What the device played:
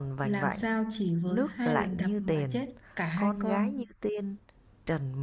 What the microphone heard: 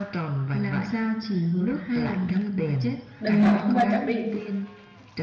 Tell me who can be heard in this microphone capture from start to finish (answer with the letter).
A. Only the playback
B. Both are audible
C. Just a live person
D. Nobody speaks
B